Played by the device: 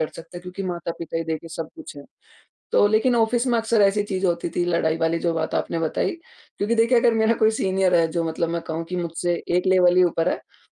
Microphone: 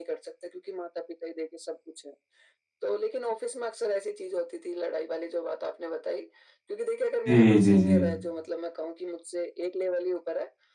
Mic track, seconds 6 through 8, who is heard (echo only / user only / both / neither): both